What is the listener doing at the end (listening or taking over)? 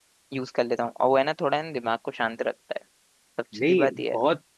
taking over